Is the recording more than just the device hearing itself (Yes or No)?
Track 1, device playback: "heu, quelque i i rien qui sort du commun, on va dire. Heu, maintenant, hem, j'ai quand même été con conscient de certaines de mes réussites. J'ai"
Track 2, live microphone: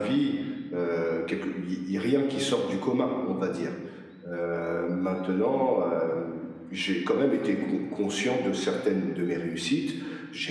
No